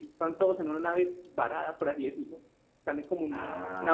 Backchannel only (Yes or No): Yes